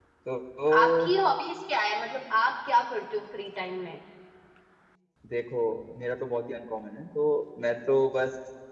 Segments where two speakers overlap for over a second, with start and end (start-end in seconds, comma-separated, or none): none